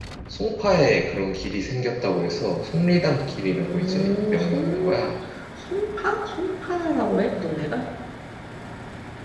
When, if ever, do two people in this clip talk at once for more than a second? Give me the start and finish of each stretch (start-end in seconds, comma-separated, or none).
3.5-5.0